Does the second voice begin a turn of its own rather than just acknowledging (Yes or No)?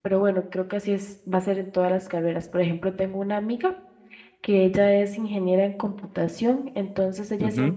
No